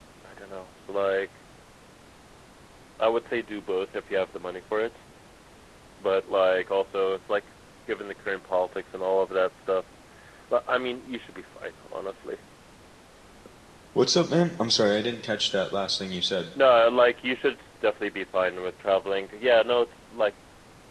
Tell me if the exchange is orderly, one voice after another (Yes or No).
Yes